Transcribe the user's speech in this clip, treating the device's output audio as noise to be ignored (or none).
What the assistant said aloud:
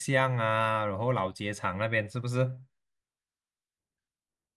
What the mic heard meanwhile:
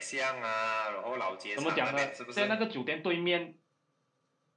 怎么讲呢？现在那个酒店对面，